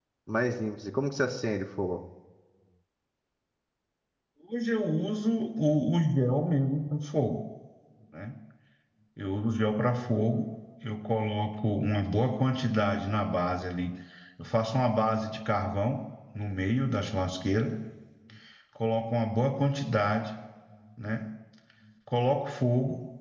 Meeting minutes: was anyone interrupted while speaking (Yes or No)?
No